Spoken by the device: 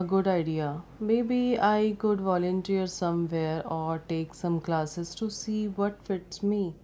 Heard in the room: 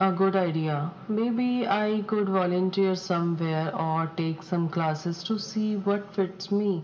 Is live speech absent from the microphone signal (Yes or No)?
Yes